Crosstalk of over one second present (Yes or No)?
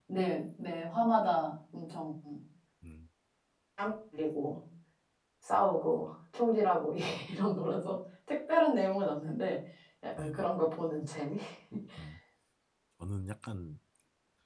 No